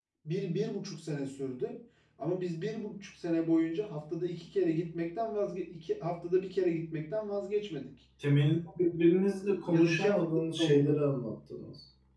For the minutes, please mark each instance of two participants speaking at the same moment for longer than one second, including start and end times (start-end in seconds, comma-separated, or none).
9.7-11.0